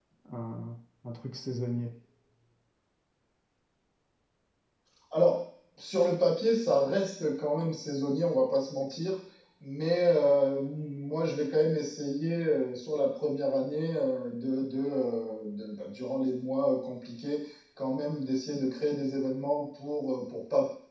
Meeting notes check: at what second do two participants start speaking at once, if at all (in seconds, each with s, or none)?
none